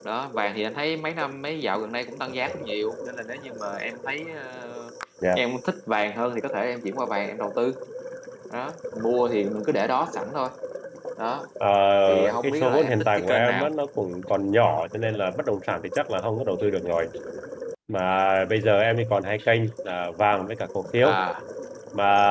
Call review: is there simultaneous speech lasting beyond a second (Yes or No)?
Yes